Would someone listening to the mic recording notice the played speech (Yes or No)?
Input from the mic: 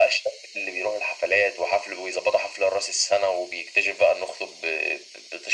Yes